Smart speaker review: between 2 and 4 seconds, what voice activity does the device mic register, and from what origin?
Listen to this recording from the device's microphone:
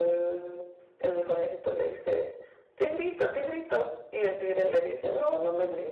echo only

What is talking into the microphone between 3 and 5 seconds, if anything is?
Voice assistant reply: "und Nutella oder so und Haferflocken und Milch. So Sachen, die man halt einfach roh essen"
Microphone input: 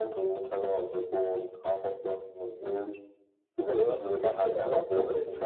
both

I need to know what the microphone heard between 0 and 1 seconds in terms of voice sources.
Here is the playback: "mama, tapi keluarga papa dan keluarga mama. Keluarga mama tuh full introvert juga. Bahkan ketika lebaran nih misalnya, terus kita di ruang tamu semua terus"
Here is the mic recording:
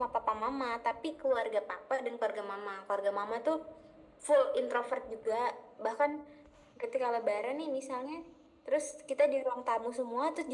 echo only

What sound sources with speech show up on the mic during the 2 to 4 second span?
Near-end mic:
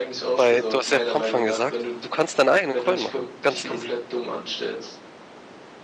both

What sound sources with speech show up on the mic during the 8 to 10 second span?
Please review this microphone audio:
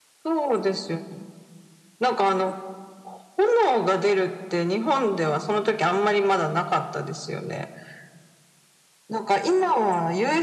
echo only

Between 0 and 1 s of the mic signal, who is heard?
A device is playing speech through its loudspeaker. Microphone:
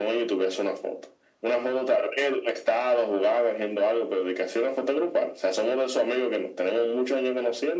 echo only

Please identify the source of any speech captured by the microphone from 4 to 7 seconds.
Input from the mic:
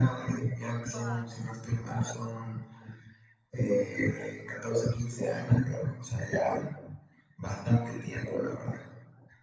echo only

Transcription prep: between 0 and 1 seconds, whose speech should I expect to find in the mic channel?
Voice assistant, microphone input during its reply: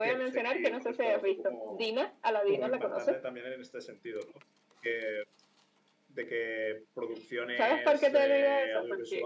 both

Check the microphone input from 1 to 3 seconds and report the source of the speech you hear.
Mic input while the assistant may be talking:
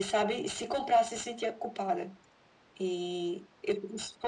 echo only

